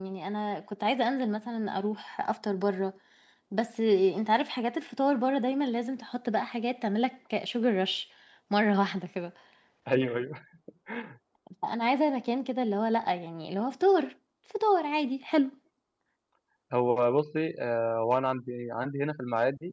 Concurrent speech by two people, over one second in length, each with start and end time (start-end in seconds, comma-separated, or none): none